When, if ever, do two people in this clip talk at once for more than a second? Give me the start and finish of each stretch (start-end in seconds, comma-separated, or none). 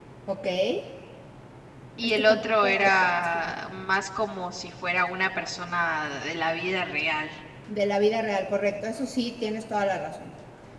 2.0-3.5